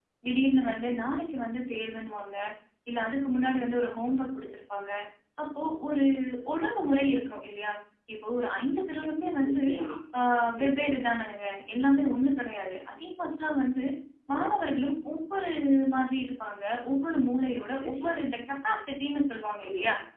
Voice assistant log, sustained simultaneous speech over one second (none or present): none